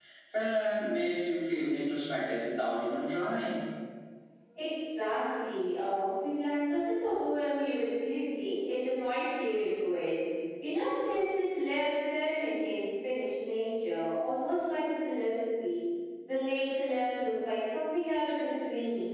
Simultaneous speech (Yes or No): No